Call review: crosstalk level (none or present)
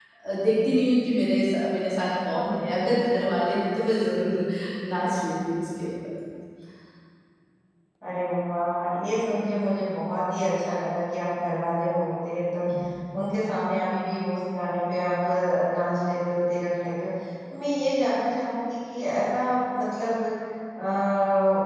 none